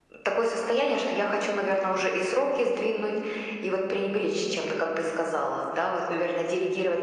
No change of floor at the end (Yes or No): Yes